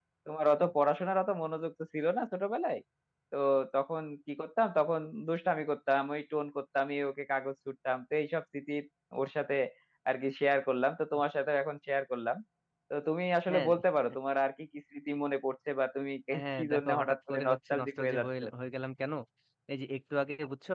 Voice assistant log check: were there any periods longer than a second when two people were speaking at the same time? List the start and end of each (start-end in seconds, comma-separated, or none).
16.6-18.4